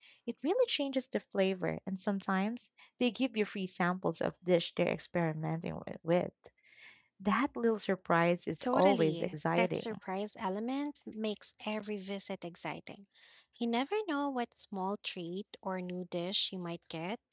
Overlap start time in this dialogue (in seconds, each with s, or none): 8.6 s